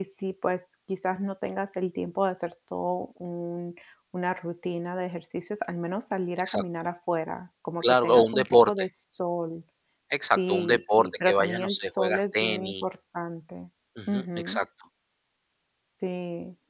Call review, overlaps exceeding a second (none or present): present